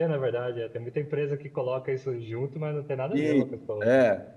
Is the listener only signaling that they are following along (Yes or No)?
No